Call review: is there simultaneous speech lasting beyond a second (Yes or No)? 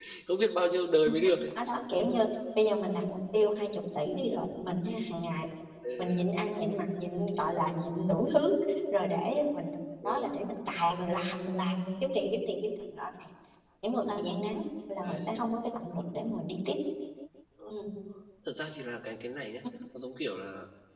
No